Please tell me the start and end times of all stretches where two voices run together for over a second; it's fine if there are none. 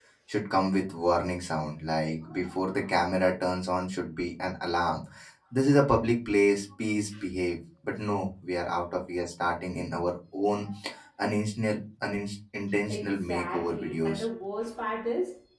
12.9-14.2

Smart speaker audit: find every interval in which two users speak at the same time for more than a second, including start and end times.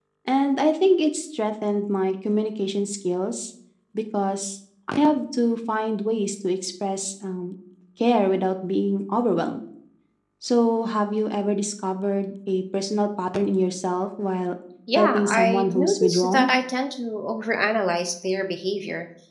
15.0-16.5

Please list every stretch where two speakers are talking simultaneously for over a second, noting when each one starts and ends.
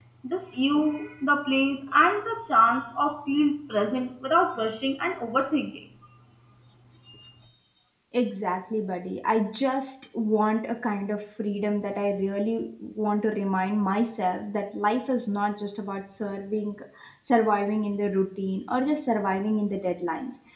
none

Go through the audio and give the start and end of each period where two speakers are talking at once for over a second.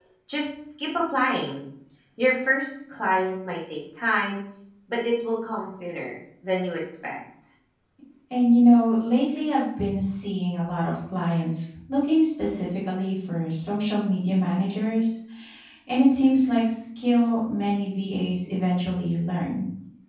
none

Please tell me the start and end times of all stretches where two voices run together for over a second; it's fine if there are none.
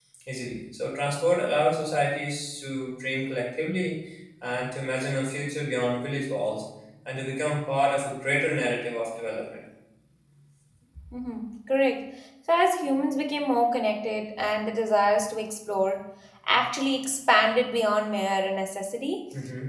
none

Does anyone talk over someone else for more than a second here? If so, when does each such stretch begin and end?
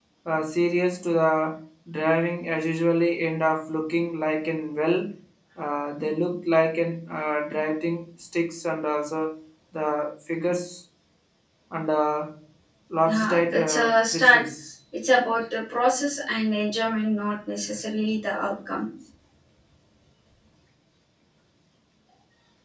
13.1-14.4

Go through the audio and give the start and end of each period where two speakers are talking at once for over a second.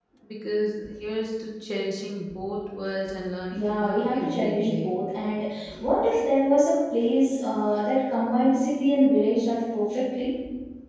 3.5-5.0

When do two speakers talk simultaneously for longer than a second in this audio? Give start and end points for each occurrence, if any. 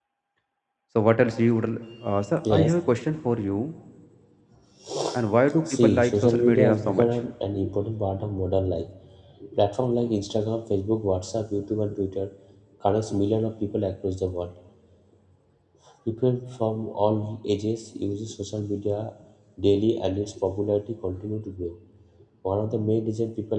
5.7-7.0

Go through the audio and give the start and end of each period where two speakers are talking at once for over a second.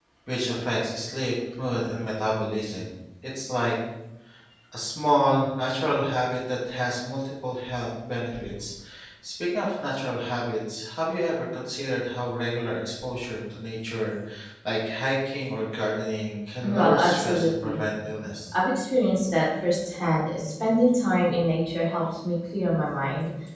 16.6-17.8

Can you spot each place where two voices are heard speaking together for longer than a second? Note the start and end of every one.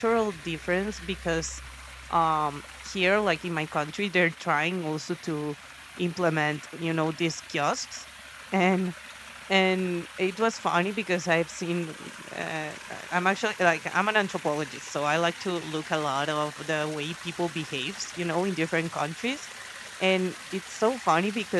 none

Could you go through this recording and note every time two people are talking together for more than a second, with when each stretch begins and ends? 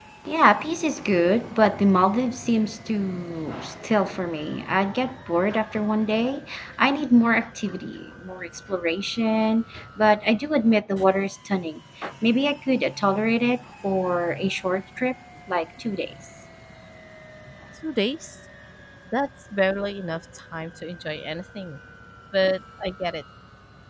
none

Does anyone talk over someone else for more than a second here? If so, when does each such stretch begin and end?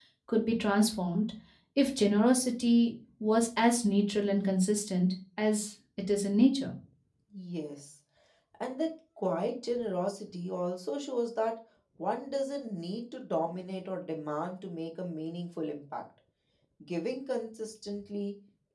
none

